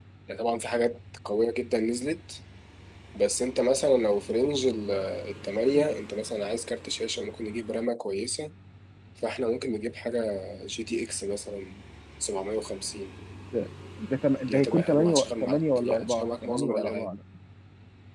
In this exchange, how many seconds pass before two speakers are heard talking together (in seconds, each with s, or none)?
14.5 s